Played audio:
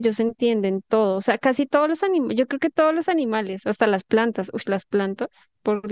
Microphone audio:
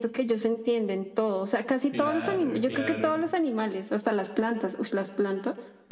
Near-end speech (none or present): present